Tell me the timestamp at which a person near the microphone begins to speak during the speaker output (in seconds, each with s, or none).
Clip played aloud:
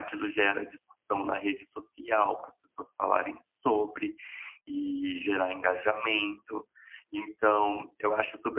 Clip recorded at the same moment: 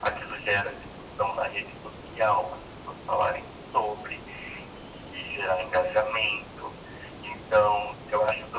none